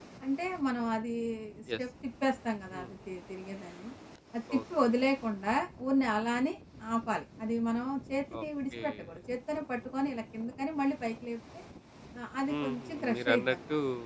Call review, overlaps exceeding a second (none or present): present